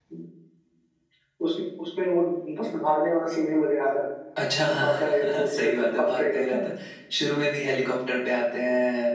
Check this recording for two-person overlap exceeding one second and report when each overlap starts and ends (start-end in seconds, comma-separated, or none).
4.7-6.6